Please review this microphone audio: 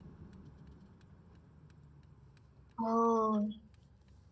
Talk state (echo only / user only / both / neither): user only